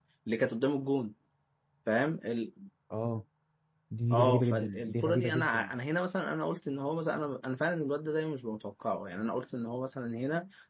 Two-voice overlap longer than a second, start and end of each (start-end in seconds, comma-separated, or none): 4.1-5.7